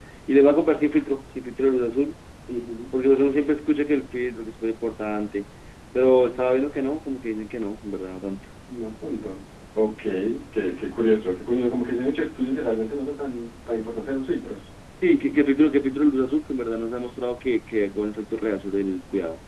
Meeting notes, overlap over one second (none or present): none